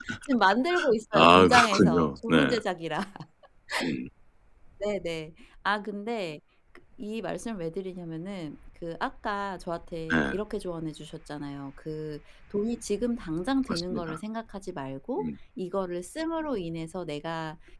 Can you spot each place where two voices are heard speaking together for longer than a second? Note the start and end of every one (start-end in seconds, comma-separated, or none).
1.1-2.6